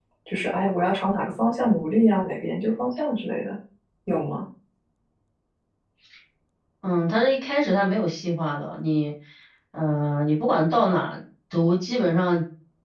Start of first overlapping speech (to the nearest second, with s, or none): none